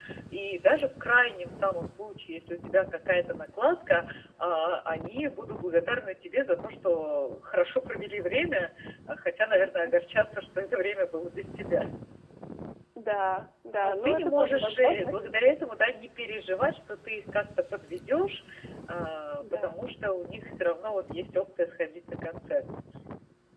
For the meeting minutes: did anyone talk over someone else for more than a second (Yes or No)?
Yes